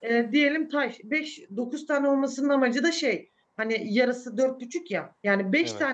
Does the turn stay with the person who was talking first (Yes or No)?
Yes